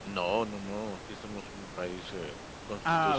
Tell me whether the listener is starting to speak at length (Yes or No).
Yes